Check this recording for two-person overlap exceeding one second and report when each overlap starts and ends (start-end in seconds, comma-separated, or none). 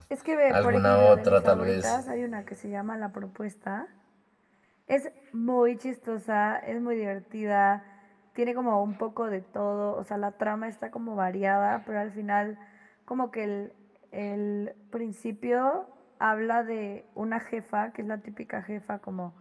0.5-2.0